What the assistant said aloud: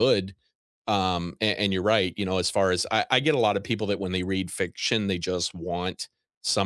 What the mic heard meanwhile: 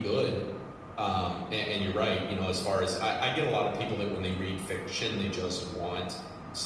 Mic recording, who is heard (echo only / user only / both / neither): echo only